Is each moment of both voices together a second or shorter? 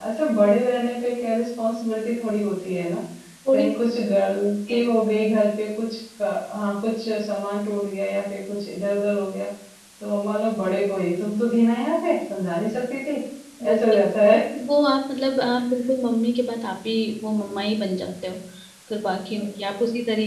Yes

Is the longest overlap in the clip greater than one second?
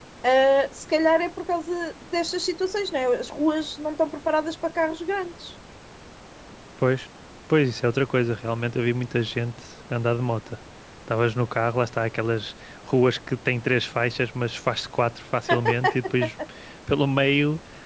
No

